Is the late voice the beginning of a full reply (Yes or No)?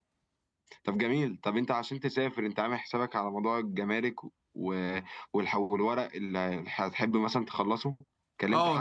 Yes